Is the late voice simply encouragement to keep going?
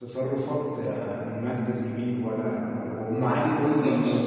Yes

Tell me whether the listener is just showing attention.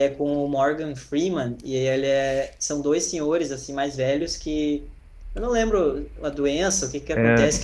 Yes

